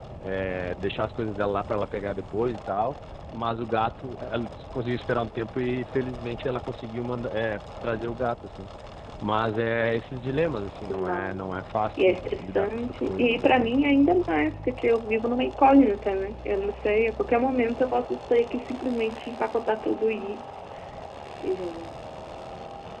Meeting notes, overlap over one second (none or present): present